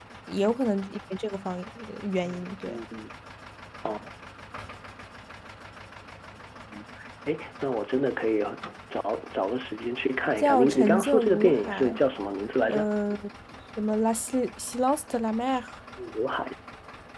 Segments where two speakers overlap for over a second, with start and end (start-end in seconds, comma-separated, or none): 10.4-12.0